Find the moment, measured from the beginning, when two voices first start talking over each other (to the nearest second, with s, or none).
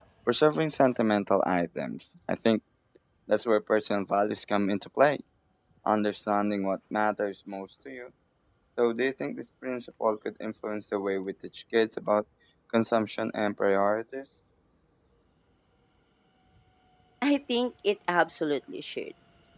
none